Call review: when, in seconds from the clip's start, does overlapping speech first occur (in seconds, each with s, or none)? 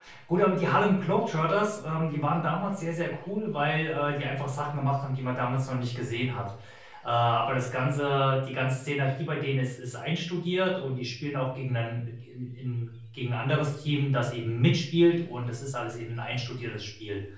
none